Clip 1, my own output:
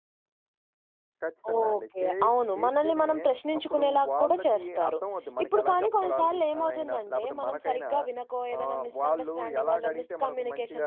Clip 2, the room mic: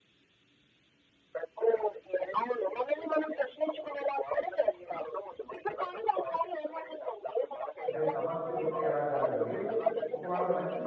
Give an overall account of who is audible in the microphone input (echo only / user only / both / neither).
both